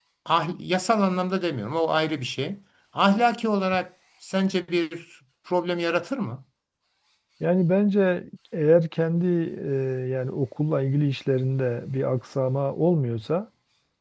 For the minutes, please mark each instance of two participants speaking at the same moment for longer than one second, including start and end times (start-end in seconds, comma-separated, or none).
none